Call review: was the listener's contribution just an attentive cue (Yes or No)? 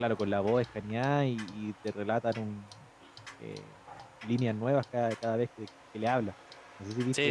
No